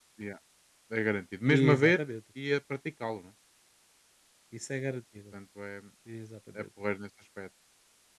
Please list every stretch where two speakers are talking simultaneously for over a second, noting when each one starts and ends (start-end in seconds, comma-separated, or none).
none